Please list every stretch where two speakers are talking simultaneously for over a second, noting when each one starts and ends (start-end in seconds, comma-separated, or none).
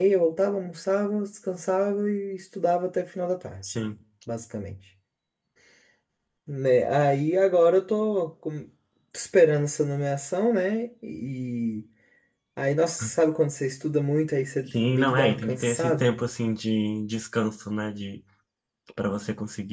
14.7-16.1